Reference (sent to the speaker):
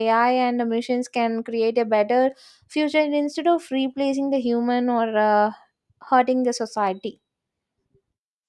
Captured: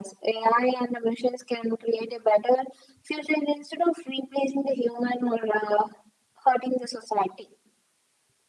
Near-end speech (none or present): none